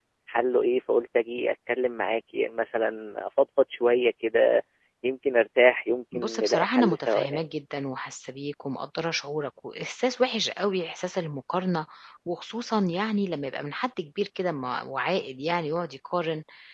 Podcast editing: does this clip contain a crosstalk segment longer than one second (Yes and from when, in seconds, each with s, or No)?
Yes, from 6.1 s